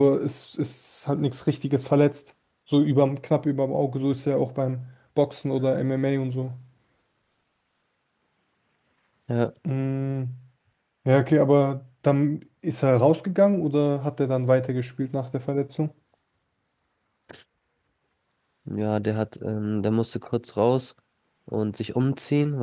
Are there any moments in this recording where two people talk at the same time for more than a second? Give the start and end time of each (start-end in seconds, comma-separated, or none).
none